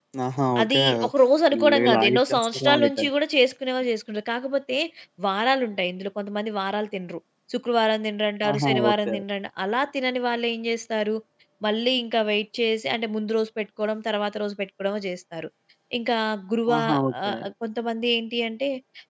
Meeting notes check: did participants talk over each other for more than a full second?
Yes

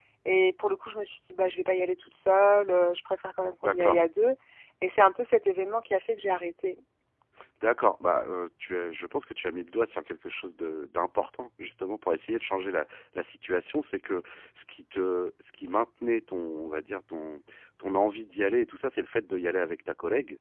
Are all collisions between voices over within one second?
Yes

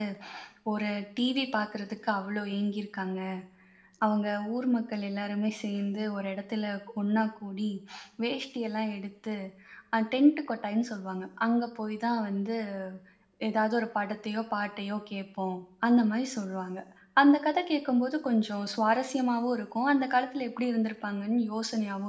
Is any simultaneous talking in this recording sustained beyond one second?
No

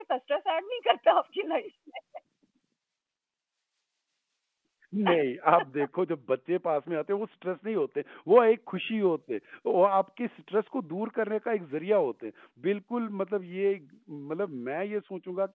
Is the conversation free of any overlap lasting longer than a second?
Yes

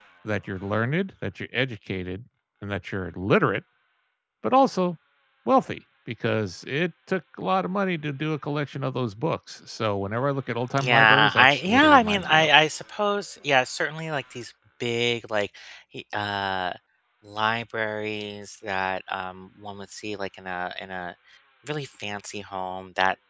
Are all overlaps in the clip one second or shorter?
No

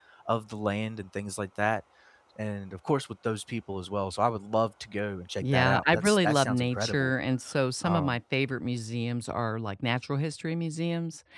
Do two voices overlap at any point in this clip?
Yes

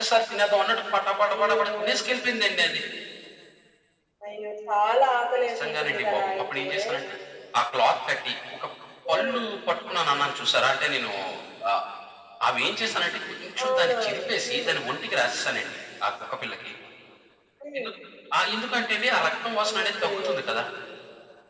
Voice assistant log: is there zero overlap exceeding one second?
No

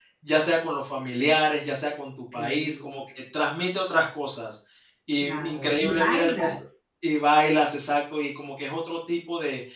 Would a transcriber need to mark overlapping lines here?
Yes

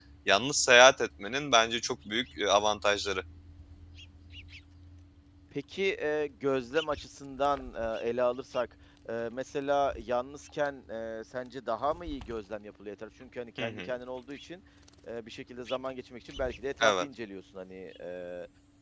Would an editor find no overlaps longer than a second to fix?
Yes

